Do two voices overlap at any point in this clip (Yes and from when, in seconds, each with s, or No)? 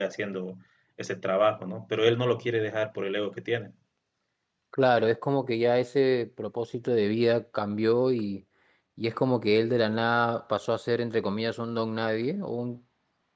No